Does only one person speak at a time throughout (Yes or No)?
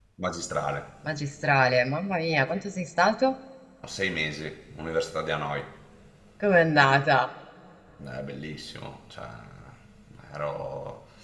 Yes